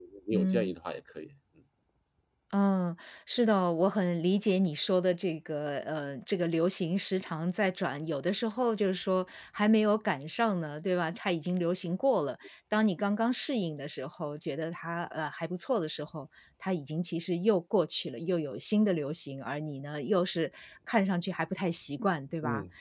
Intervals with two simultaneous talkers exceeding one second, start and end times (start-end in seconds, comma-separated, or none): none